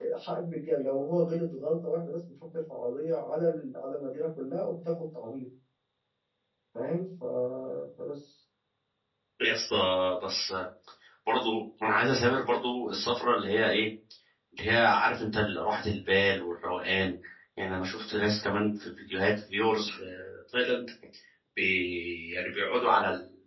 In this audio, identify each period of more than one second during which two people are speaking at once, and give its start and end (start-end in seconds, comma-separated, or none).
none